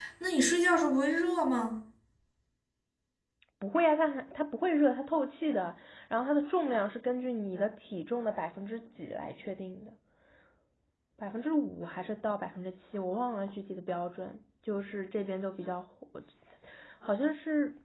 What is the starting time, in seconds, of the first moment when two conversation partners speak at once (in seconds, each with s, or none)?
none